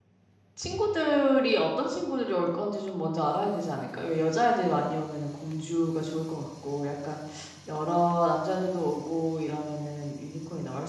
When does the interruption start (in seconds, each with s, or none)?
none